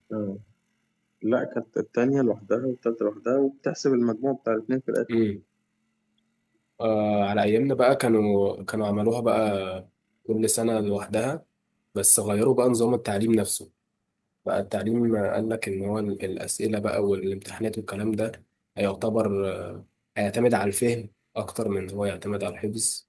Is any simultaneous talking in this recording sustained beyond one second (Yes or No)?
No